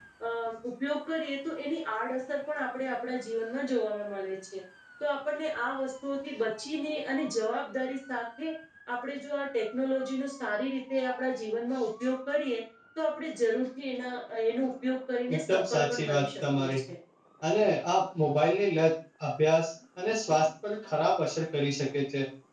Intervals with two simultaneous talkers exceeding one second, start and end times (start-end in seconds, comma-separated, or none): 15.3-16.8